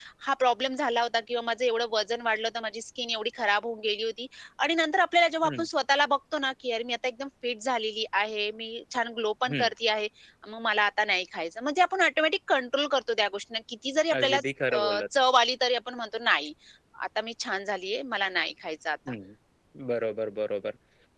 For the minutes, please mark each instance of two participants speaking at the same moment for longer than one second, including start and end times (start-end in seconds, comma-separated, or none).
none